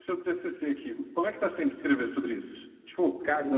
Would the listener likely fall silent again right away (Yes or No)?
Yes